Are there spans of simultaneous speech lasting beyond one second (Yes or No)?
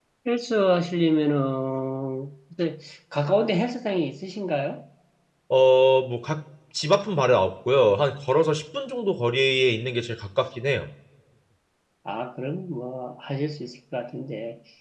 No